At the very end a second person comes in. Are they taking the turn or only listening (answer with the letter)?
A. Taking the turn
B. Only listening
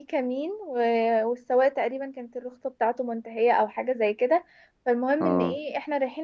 B